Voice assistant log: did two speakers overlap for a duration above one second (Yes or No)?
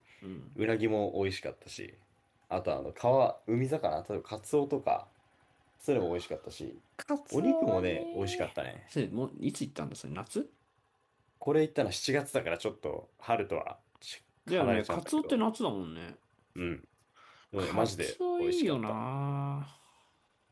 Yes